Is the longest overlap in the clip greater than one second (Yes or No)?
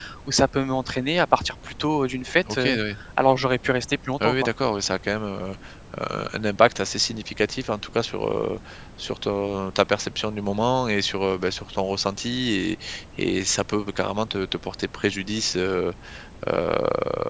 No